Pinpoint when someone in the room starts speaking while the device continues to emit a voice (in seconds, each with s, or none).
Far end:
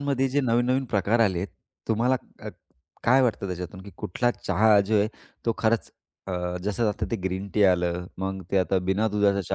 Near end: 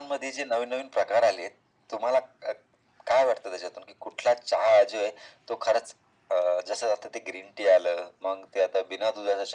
none